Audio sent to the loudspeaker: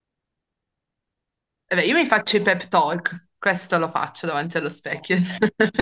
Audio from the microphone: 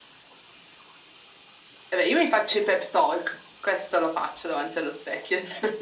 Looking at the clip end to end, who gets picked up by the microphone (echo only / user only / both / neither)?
echo only